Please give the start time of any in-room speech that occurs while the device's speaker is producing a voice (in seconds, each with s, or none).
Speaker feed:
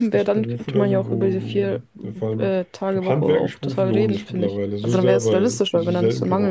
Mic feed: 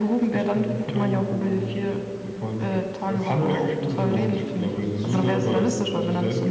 2.5 s